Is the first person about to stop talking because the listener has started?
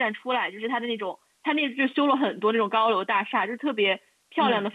No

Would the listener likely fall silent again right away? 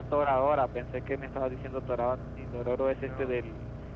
Yes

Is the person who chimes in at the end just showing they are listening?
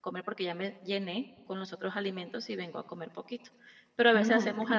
Yes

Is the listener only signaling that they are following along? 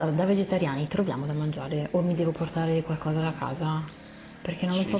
No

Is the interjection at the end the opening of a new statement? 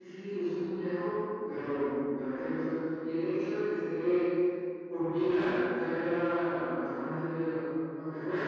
No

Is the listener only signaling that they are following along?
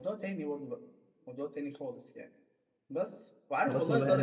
No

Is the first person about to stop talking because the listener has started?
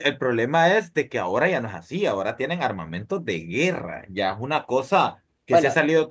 No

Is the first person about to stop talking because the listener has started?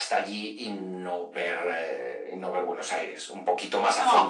Yes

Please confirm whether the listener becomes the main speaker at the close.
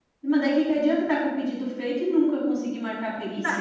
Yes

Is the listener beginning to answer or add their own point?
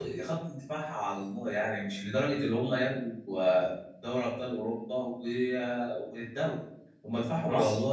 No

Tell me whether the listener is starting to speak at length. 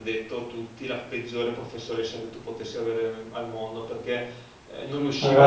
No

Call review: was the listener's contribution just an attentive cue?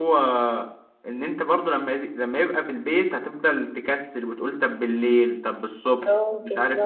No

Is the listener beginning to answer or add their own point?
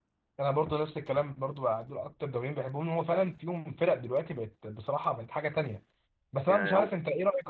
No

